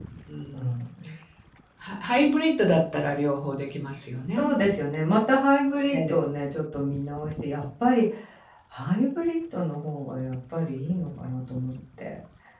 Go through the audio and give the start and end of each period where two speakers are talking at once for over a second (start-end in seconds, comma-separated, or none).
none